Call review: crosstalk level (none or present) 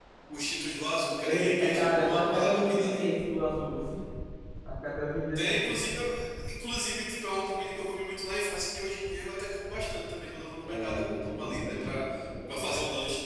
present